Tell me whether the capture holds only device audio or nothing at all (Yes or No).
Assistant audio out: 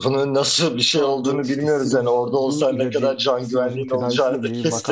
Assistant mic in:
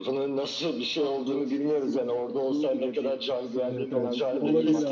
No